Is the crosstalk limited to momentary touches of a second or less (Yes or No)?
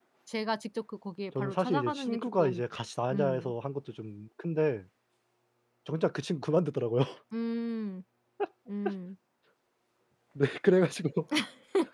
No